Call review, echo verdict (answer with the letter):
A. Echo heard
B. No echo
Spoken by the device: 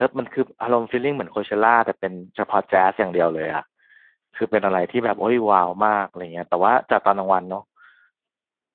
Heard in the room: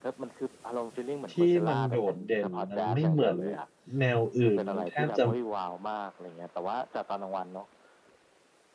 A